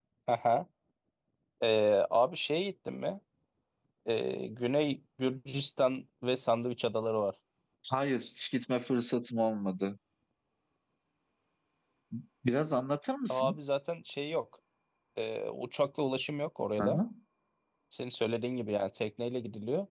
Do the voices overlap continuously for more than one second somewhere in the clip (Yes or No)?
No